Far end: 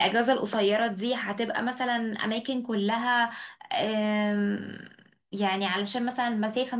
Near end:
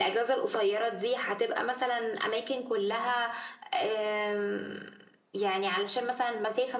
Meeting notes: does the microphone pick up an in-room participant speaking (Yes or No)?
No